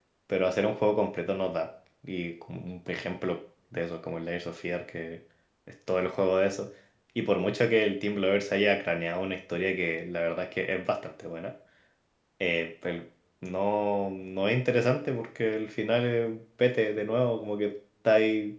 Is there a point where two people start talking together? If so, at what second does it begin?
none

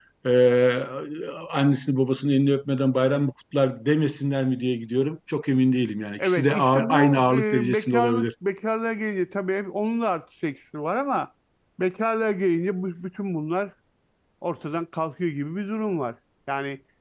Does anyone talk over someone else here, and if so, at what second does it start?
6.2 s

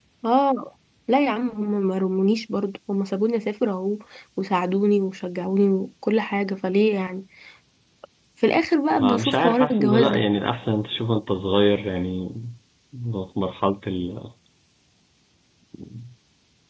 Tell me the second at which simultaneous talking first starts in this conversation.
9.0 s

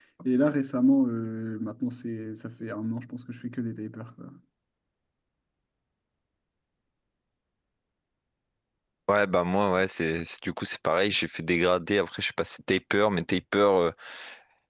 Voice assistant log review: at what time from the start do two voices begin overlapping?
none

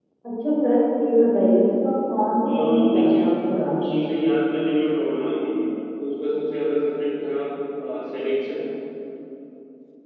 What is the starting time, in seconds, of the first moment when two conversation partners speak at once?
2.4 s

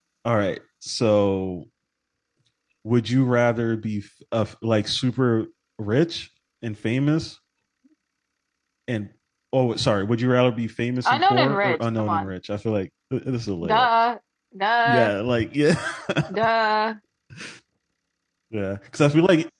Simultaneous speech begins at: 11.0 s

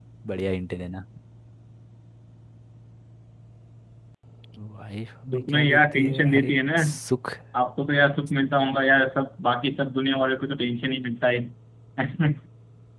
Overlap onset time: 5.3 s

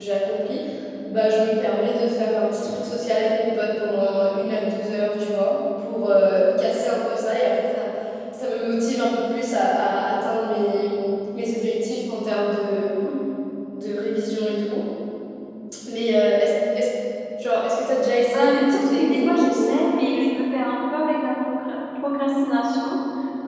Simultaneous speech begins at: 18.3 s

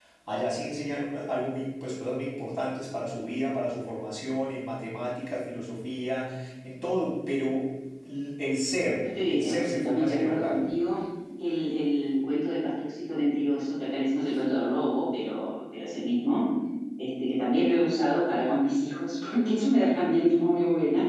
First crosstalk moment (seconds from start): 9.3 s

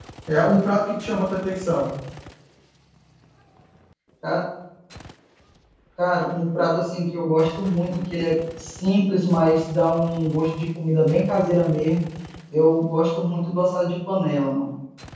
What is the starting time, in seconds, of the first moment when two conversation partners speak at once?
none

